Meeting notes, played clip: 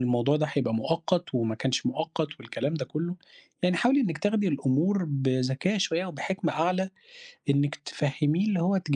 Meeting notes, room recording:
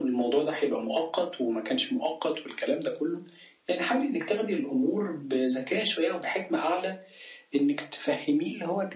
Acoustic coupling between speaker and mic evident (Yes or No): Yes